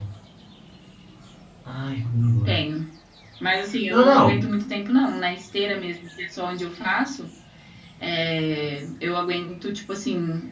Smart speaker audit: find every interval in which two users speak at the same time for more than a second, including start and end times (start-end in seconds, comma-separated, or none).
none